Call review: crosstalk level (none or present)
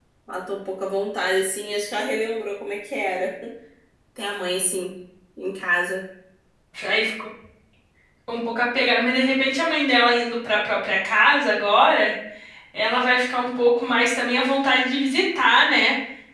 none